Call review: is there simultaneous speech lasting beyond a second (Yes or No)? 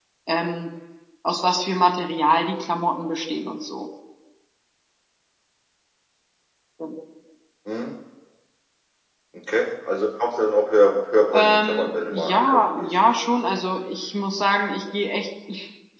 Yes